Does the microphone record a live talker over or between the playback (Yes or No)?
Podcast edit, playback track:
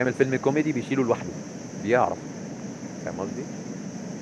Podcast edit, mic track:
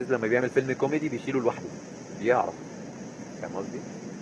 No